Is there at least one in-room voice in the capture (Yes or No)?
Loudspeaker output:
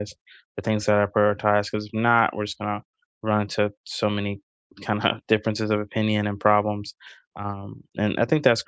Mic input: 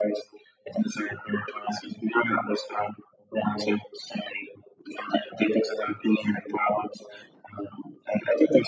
No